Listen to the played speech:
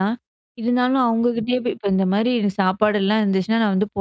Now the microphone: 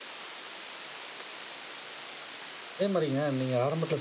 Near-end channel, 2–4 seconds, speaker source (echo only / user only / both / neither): user only